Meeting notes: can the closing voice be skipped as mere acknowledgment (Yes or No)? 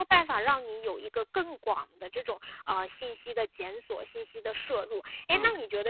Yes